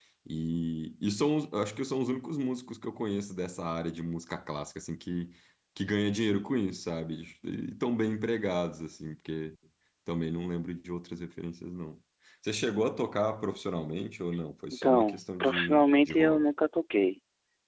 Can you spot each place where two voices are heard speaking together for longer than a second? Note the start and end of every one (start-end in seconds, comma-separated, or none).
14.7-16.4